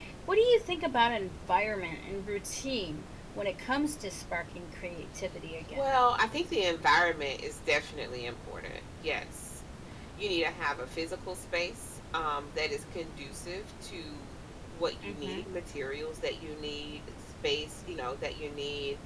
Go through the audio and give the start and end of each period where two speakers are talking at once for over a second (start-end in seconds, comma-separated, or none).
none